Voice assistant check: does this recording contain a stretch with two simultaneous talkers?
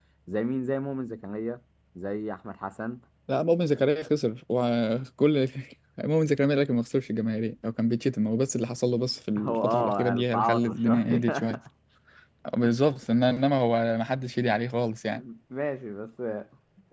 Yes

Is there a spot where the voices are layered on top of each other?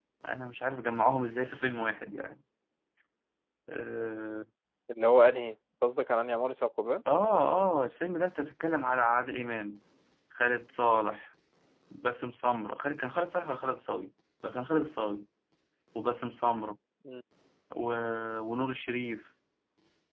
No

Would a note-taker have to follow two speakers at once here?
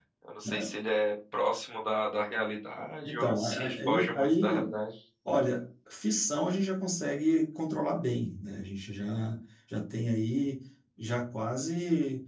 Yes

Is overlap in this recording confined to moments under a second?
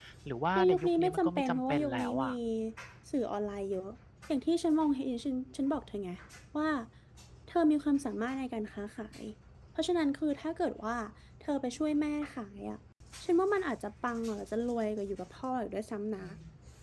No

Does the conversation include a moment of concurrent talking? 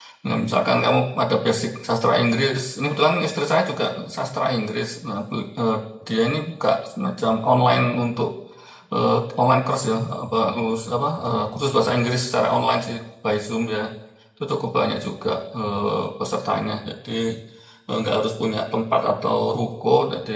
No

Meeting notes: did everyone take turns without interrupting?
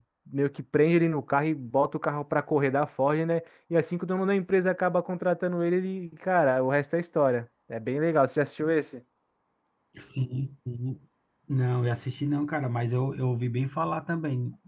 Yes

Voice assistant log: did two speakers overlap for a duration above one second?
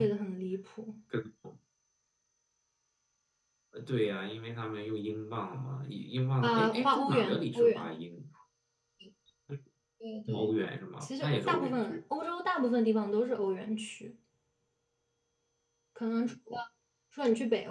Yes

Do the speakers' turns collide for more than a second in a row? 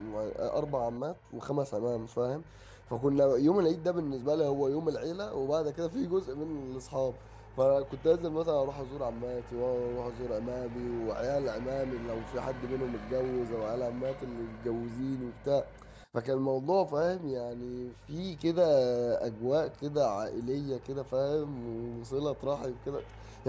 No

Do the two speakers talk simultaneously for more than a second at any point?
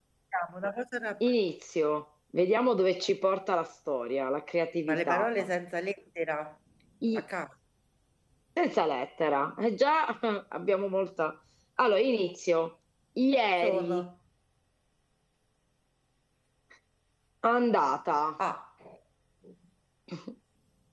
No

